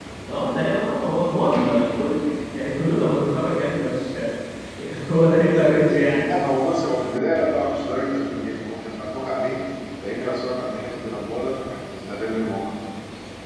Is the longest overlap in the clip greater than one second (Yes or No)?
No